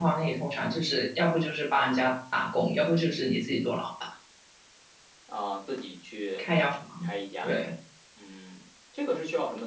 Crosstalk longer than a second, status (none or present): none